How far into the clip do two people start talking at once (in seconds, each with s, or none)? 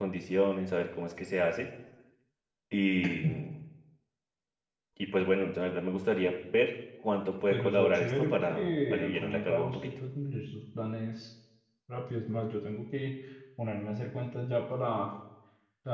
7.5 s